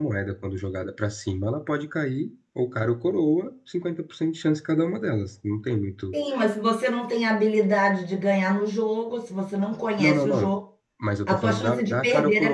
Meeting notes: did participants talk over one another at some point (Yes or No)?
Yes